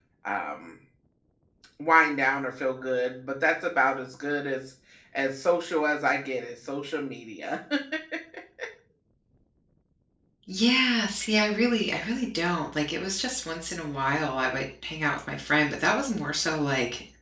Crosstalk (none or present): none